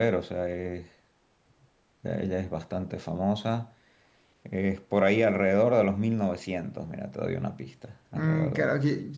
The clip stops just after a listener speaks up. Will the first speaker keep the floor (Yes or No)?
No